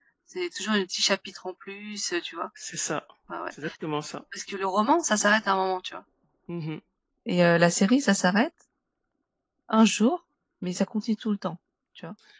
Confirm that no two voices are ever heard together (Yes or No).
Yes